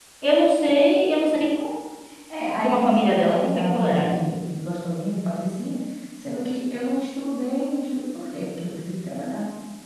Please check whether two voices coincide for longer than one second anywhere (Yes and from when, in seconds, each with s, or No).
Yes, from 2.6 s